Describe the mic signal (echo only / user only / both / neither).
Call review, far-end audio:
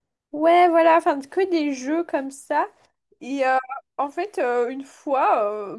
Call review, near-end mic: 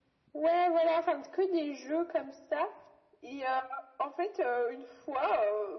echo only